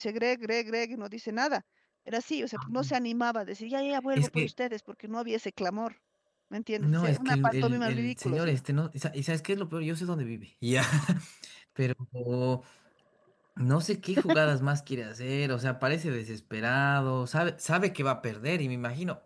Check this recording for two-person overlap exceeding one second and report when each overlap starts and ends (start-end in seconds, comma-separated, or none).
6.8-8.6